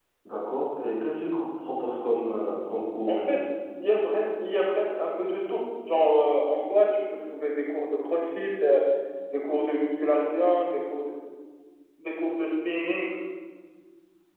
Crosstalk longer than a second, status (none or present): none